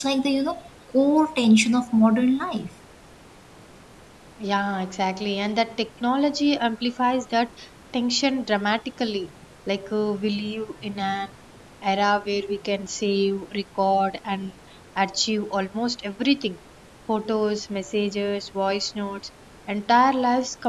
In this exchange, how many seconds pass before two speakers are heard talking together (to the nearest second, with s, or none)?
none